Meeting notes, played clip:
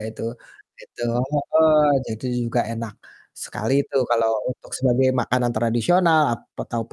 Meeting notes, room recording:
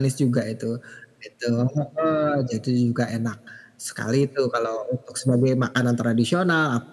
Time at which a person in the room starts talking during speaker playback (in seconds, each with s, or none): none